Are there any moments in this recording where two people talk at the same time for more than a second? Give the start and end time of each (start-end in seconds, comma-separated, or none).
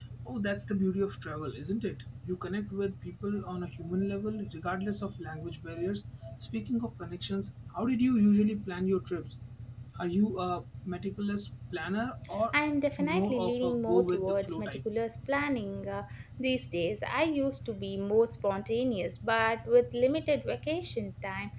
13.0-14.8